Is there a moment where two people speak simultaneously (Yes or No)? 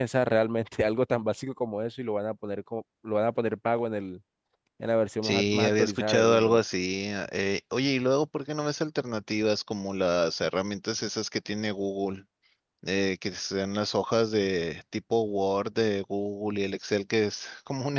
Yes